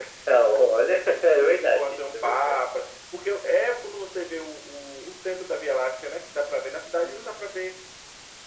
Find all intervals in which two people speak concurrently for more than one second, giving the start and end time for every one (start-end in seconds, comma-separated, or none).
1.3-2.7